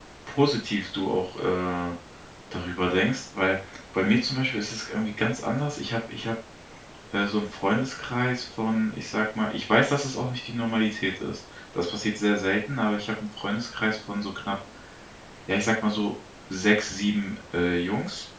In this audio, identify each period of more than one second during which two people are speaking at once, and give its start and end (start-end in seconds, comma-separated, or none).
none